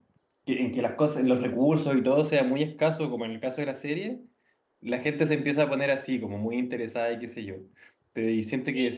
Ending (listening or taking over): taking over